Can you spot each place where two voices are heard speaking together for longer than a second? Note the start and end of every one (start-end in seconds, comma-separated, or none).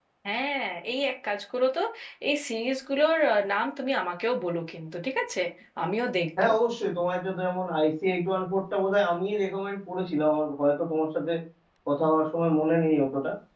none